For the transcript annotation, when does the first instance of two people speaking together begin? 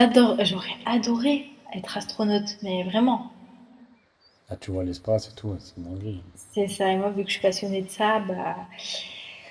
none

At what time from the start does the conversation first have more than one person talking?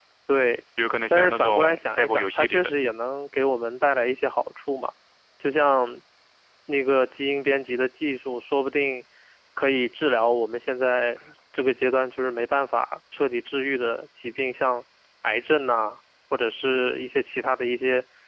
1 s

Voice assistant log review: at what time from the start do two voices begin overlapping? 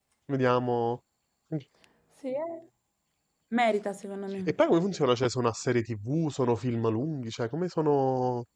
none

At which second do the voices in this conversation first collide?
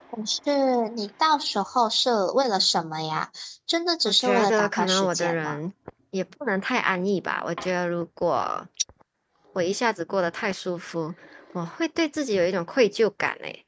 4 s

